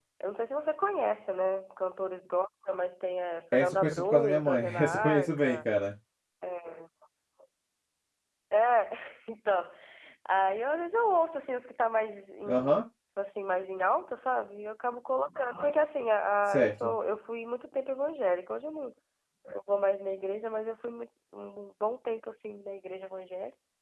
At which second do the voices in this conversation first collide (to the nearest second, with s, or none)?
4 s